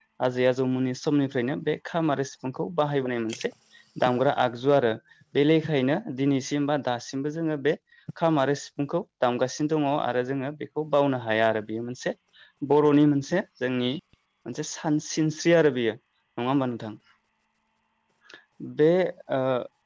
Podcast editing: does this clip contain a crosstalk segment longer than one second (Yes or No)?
No